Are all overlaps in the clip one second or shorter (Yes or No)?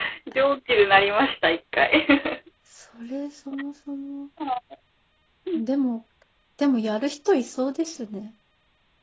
Yes